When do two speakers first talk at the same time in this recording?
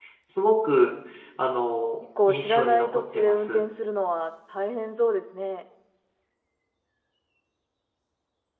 2.3 s

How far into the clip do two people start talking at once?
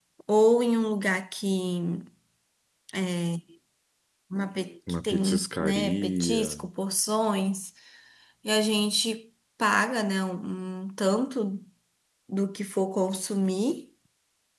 5.0 s

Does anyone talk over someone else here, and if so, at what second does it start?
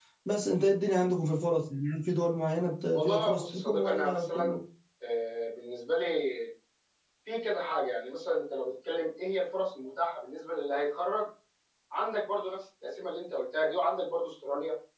2.9 s

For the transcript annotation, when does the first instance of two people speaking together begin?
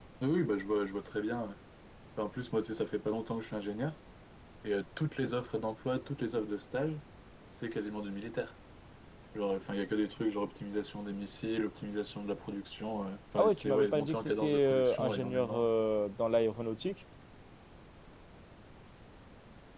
13.4 s

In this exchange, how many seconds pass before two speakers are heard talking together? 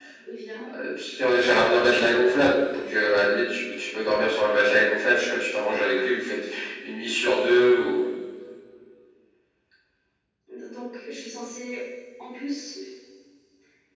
none

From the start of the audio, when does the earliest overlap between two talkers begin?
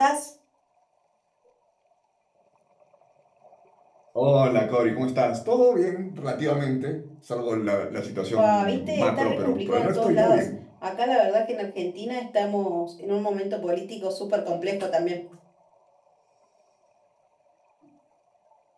8.4 s

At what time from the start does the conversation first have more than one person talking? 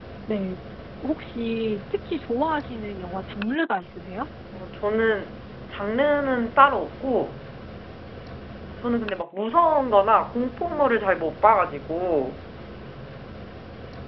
none

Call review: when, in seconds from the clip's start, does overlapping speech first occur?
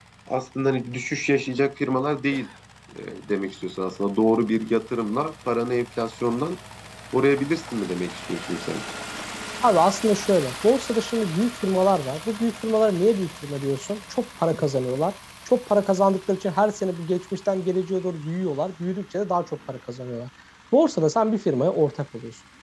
none

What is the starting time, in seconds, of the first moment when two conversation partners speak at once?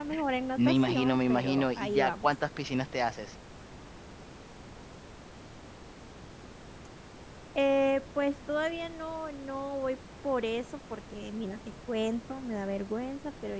0.6 s

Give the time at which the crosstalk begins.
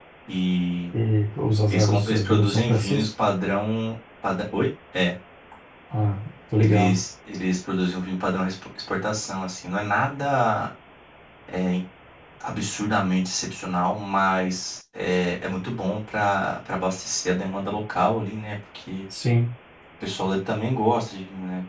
1.7 s

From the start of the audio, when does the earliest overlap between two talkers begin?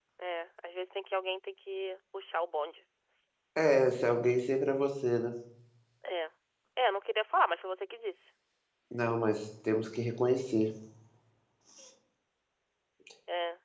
none

